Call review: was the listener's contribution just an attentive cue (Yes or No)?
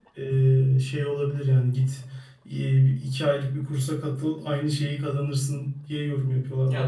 No